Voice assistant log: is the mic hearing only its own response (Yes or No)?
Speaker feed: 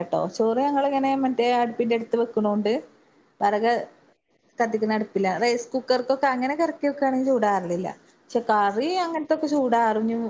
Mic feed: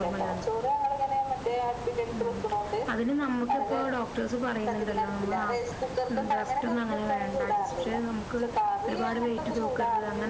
No